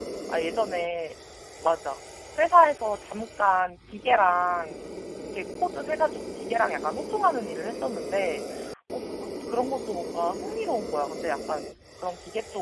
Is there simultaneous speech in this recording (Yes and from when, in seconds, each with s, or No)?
No